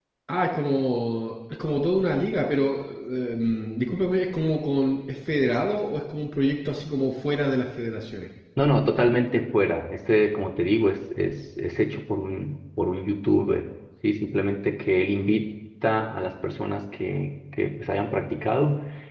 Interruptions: none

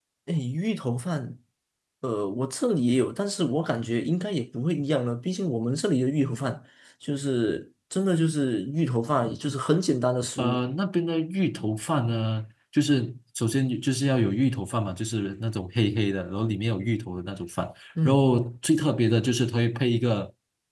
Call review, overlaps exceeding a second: none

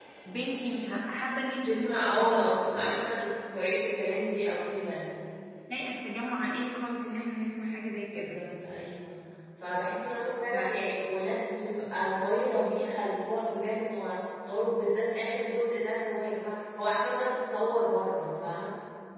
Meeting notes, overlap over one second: present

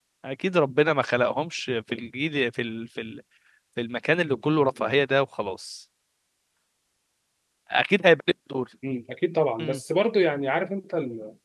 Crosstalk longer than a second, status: none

